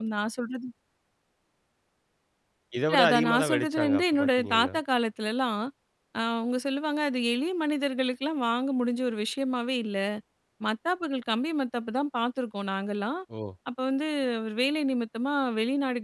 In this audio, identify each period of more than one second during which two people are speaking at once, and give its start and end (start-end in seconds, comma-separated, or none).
2.9-4.8